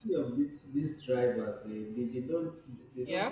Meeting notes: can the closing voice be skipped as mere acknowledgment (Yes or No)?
Yes